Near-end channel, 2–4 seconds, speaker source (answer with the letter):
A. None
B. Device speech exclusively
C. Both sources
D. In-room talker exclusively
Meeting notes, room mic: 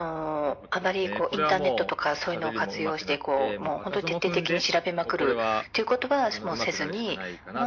C